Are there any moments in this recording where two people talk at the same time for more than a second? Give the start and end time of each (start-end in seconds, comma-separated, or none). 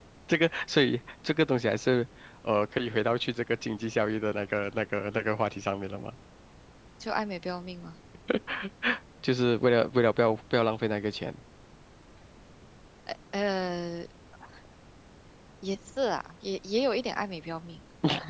none